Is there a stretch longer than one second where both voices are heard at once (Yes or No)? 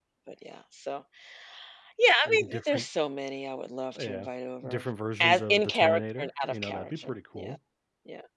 Yes